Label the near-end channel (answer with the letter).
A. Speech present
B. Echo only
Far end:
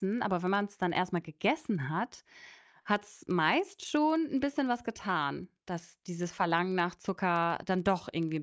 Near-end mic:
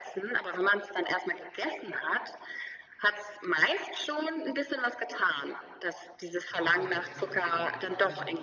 A